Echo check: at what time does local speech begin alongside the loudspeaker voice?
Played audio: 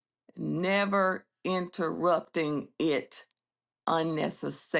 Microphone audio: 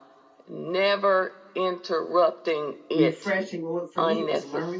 3 s

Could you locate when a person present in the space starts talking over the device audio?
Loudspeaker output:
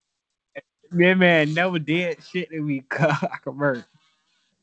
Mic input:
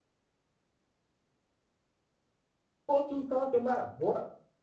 3 s

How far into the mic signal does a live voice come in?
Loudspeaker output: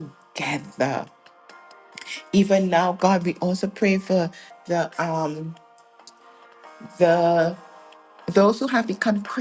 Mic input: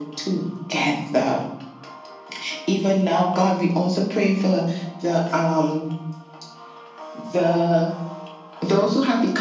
none

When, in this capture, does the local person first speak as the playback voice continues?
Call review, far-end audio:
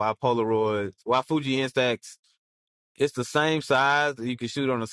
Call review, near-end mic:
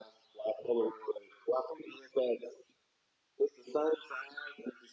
none

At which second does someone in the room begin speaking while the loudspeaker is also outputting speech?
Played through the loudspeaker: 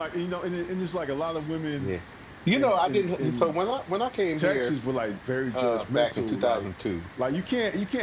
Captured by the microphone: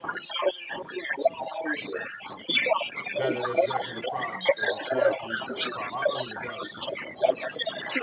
3 s

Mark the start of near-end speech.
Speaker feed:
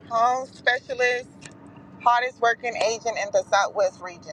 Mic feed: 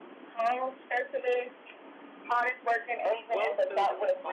3 s

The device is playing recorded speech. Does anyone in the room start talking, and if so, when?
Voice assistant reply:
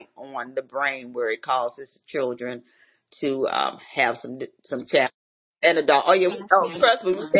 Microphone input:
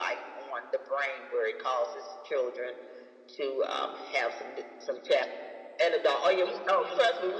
none

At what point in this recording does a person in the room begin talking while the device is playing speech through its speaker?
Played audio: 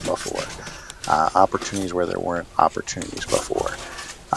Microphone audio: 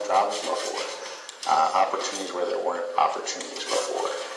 none

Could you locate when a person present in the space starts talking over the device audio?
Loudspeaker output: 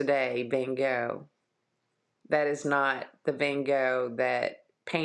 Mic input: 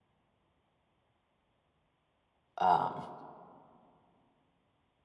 3 s

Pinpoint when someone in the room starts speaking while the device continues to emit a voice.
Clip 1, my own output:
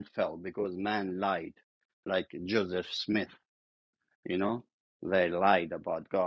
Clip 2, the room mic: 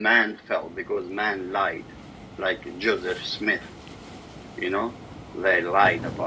none

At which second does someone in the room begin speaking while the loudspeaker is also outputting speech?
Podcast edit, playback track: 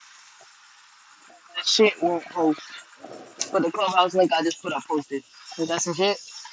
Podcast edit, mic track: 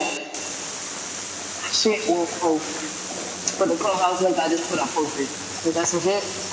none

